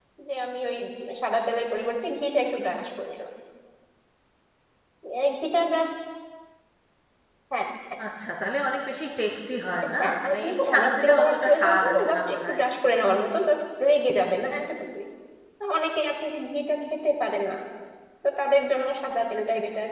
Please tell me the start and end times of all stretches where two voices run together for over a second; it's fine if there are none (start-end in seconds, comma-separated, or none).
10.0-12.6